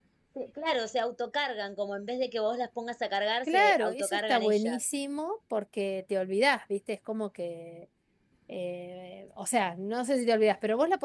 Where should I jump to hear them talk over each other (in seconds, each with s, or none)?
3.5 s